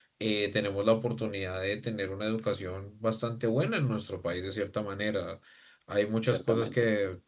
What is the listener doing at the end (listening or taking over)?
listening